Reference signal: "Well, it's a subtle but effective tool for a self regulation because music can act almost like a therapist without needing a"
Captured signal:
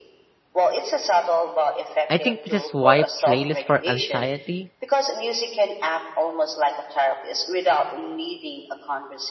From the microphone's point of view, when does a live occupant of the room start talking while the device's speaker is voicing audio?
2 s

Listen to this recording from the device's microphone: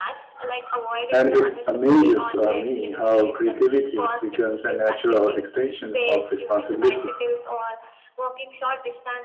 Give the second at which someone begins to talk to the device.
1 s

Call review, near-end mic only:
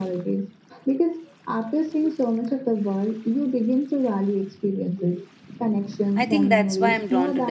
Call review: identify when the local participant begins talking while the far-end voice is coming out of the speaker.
6 s

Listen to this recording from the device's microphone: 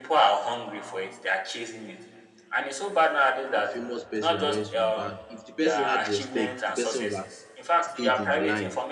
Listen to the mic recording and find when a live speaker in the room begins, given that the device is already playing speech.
4 s

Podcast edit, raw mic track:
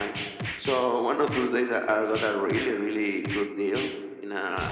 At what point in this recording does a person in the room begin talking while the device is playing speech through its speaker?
none

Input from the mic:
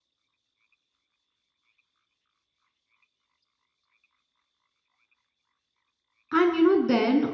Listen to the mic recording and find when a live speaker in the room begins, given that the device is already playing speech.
6 s

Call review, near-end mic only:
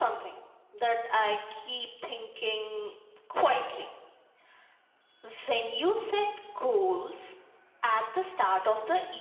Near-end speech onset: none

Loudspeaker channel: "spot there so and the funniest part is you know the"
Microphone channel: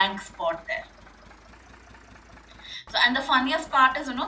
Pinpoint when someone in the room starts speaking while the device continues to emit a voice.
none

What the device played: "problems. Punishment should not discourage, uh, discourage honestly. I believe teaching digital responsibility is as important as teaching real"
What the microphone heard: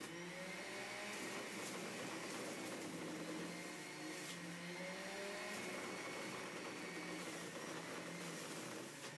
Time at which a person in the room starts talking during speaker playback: none

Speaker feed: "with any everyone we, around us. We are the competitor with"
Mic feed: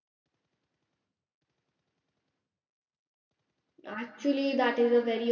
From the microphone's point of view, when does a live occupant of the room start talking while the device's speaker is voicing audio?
4 s

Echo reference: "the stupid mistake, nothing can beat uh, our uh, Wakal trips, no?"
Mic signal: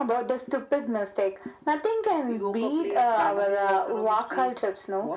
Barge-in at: 2 s

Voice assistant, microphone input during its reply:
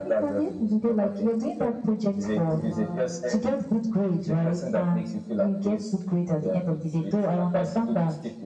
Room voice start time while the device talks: 2 s

